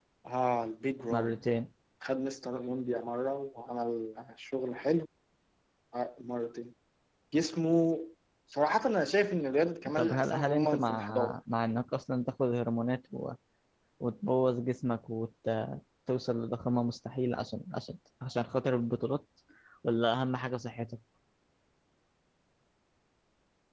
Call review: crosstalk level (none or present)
present